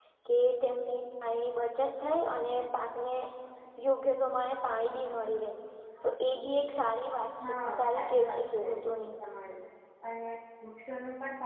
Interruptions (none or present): present